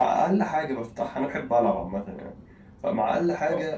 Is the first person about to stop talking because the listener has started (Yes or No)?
No